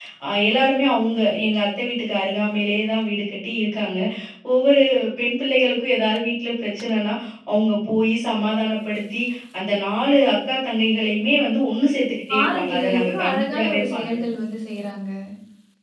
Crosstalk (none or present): present